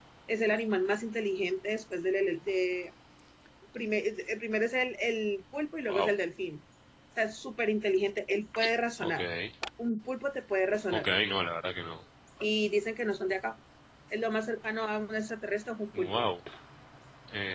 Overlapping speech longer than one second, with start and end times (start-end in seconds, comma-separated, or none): none